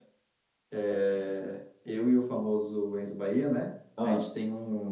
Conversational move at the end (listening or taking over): listening